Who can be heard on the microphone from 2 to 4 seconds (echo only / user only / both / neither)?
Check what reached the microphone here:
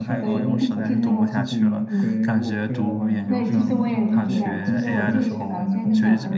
both